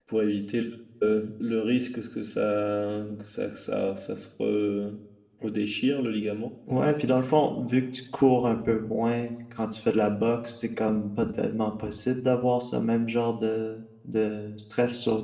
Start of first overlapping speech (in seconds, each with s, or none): none